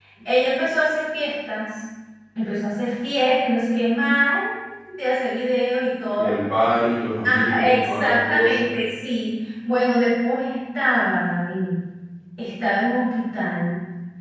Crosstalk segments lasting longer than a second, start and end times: 7.2-8.6

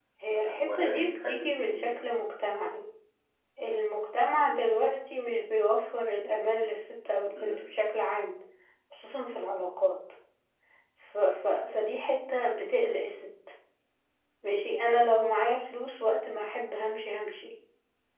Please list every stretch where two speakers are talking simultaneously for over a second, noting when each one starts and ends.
0.6-2.1

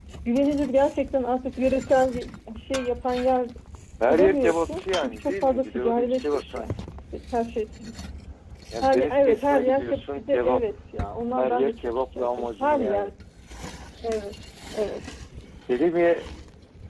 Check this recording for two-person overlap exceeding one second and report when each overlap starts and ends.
4.1-6.7, 8.8-10.6, 11.4-13.1

